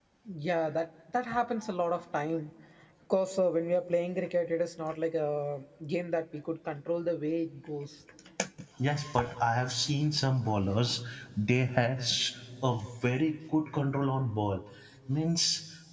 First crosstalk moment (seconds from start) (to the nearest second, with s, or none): none